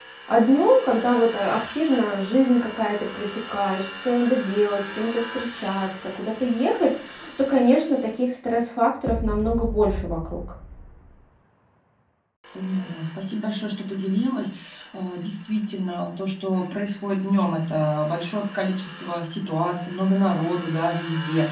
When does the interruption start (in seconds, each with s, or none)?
none